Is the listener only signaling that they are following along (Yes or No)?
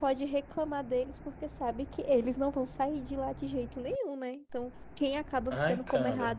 Yes